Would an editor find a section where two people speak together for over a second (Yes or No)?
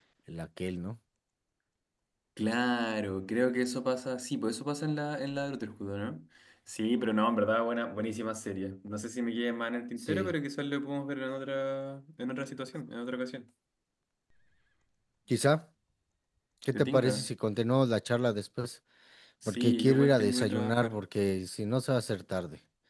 Yes